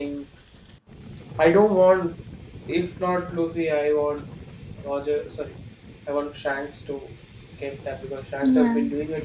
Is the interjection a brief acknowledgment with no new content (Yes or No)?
Yes